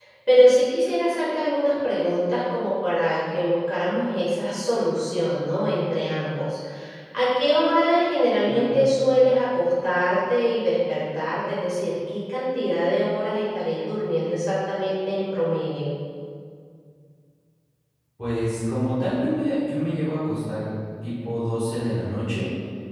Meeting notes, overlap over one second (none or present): none